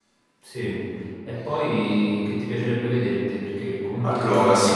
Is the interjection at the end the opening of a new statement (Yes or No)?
Yes